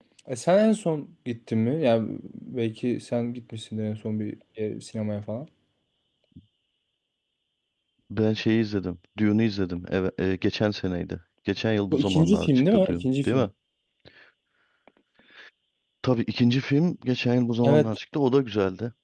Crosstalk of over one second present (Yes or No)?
Yes